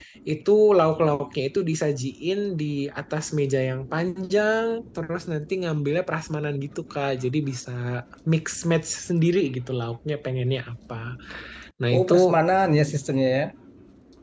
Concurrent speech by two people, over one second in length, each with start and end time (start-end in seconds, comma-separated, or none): none